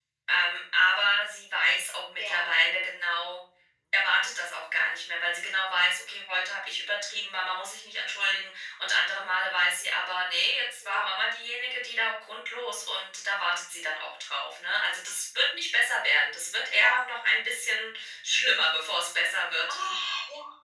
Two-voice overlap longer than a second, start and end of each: none

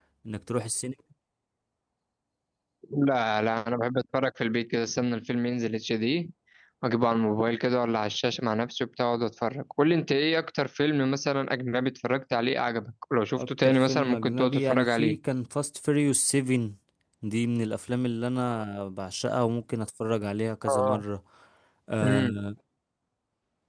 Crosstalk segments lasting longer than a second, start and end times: 13.4-15.2

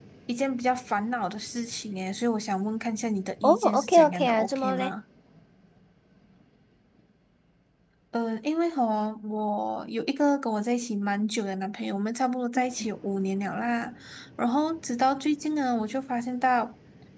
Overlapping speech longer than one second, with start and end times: 3.4-4.9

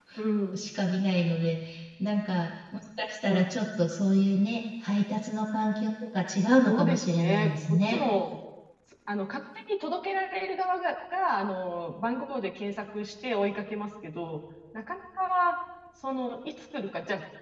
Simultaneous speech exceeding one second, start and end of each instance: 6.6-8.0

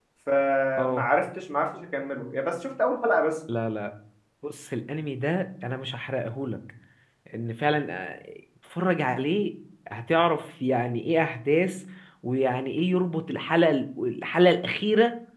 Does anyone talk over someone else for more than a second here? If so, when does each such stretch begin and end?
none

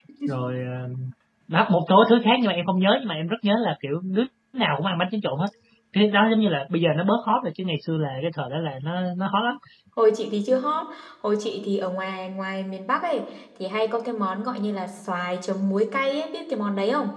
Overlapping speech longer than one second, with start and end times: none

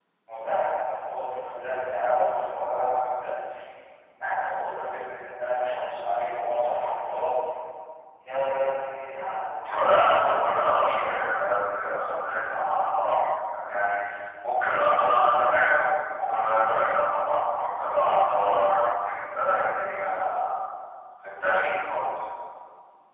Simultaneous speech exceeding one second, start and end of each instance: 9.3-11.0

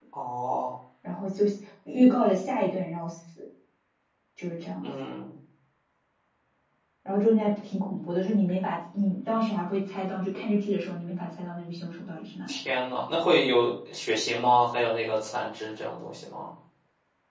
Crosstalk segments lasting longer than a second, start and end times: none

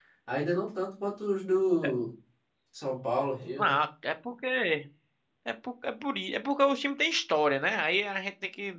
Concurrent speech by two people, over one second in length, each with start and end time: none

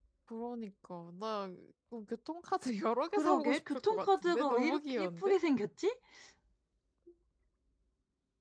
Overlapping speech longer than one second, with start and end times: 3.2-5.3

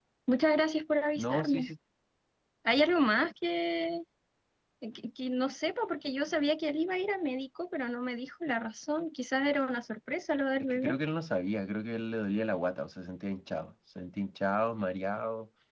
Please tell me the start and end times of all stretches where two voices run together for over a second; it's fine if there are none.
none

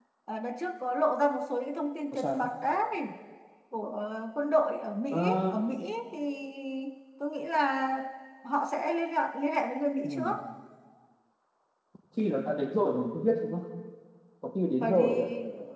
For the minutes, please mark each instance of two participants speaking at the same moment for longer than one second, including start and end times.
none

